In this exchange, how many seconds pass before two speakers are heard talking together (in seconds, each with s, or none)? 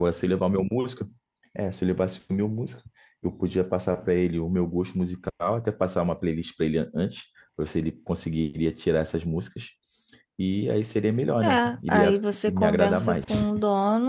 11.4 s